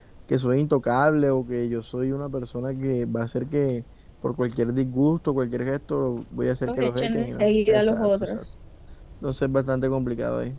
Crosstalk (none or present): present